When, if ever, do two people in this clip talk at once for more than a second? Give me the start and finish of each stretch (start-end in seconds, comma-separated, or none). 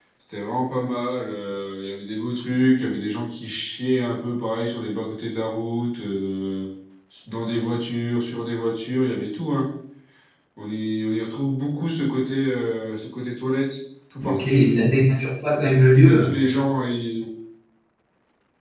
none